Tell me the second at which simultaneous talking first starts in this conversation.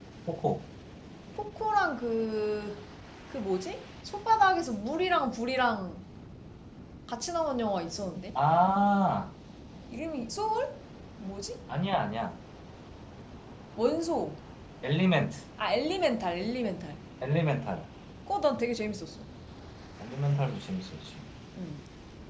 none

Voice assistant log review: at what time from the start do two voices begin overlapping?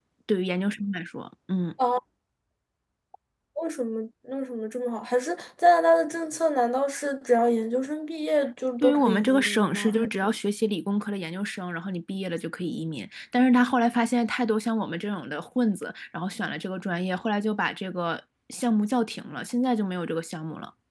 8.8 s

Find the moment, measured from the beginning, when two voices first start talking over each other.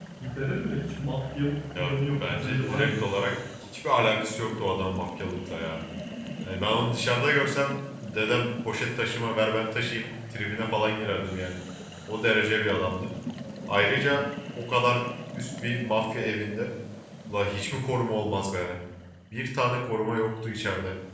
1.8 s

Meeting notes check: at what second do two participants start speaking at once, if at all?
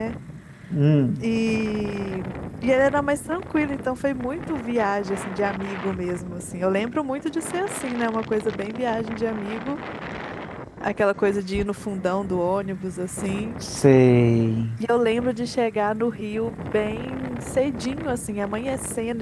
none

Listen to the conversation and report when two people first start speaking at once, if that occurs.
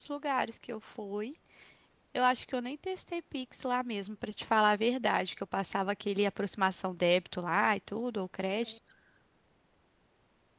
none

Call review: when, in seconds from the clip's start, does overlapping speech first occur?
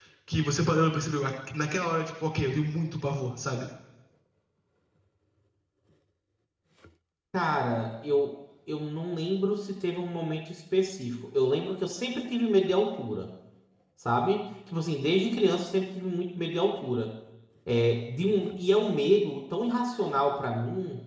none

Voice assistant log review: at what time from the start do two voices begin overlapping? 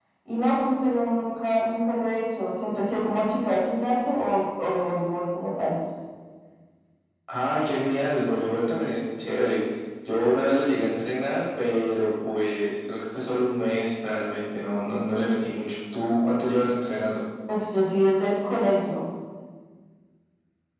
none

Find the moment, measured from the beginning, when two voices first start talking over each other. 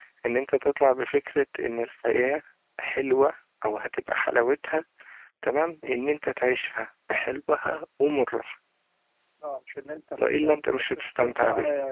10.2 s

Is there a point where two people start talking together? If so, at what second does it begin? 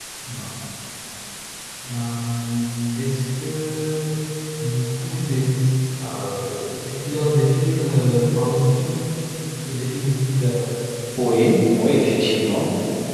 none

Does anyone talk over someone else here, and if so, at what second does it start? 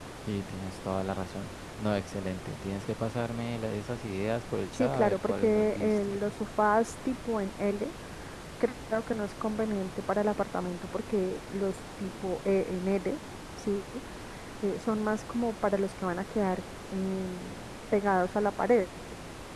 4.7 s

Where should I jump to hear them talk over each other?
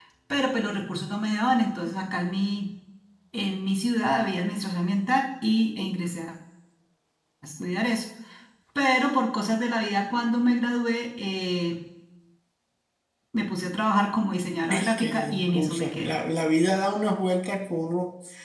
14.6 s

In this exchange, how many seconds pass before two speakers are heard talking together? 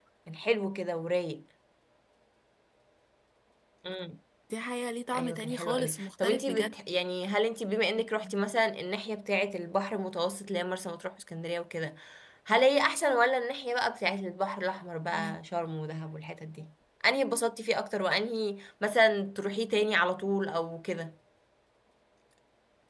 5.1 s

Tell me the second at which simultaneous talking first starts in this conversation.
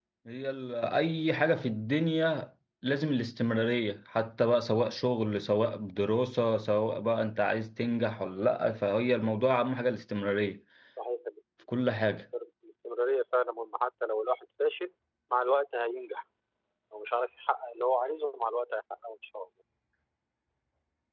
none

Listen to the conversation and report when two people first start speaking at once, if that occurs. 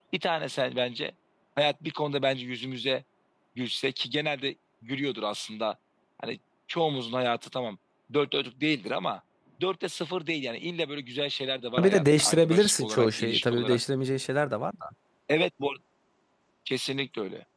11.8 s

